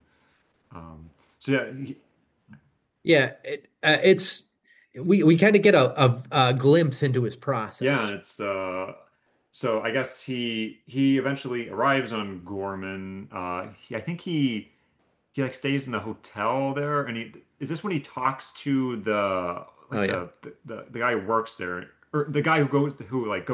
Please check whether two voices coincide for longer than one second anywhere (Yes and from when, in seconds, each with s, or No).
No